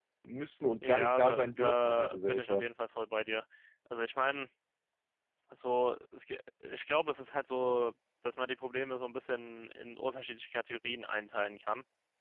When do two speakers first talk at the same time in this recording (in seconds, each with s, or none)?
0.8 s